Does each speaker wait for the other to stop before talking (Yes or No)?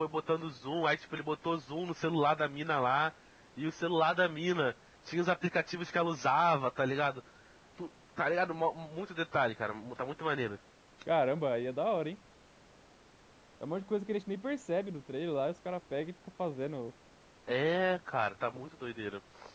Yes